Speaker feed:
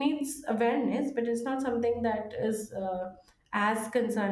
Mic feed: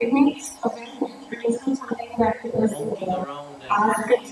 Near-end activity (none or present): present